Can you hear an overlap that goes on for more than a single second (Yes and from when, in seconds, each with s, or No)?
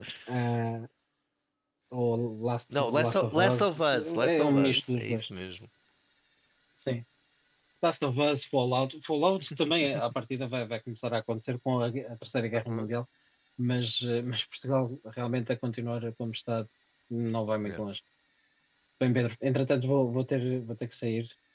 Yes, from 2.8 s